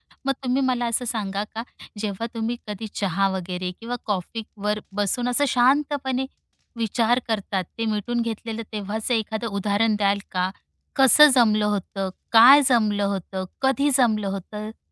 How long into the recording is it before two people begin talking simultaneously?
none

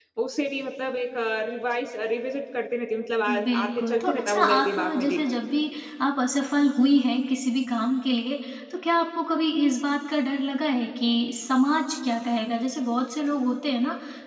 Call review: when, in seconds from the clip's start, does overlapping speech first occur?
3.3 s

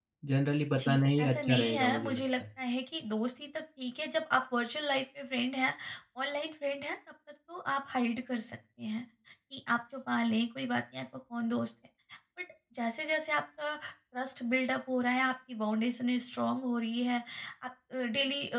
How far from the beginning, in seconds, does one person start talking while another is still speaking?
0.8 s

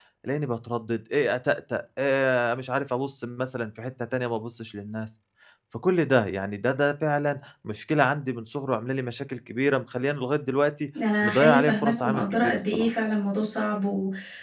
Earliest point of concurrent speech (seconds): 11.2 s

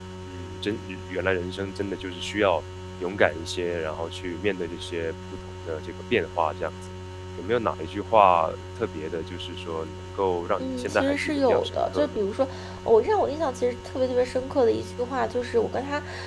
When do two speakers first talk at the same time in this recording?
10.6 s

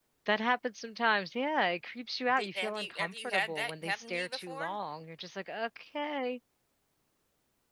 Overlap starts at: 2.4 s

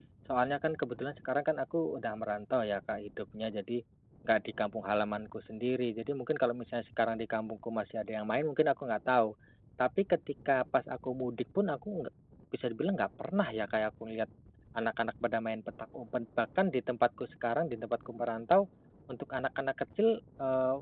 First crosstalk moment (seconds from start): none

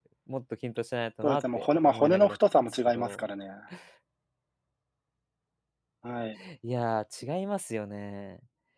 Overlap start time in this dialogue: 1.2 s

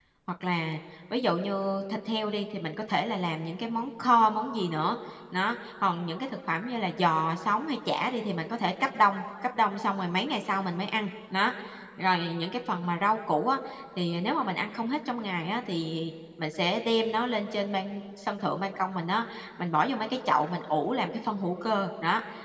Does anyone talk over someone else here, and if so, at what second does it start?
none

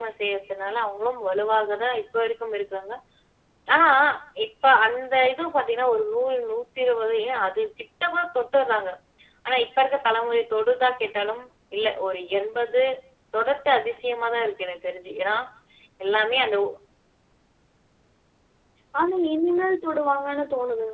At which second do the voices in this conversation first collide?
none

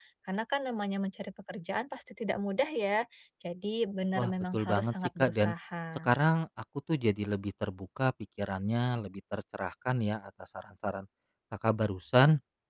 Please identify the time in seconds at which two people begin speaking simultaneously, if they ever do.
4.2 s

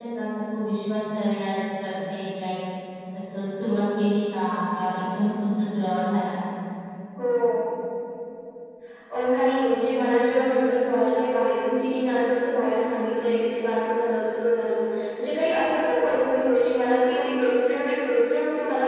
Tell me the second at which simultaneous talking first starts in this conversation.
none

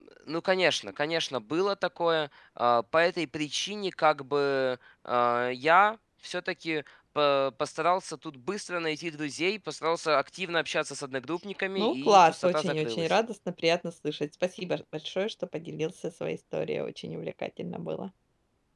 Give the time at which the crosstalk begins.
11.8 s

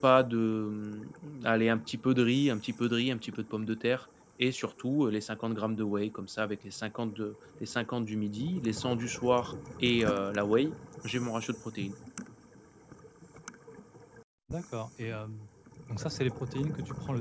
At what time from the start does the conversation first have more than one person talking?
none

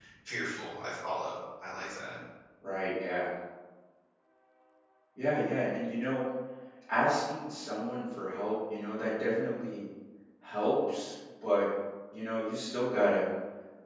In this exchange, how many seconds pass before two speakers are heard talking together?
none

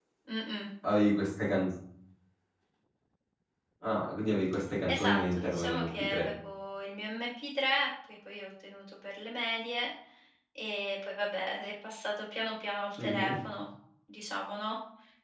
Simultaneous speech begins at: 4.9 s

